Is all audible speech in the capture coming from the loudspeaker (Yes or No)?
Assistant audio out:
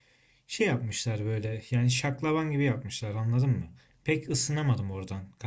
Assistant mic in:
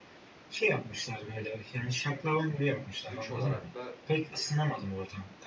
No